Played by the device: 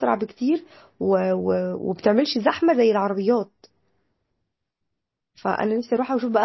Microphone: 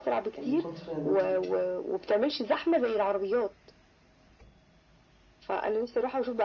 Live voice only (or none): يعني من كتر ما انتي بتشوفي